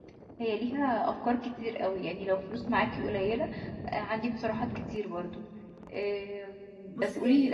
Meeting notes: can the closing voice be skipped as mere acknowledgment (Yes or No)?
Yes